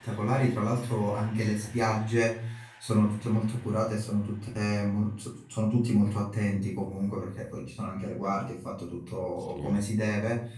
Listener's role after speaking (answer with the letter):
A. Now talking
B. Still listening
B